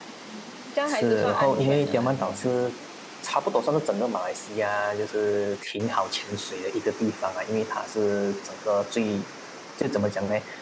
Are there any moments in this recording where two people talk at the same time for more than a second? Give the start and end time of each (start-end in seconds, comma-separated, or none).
0.8-2.1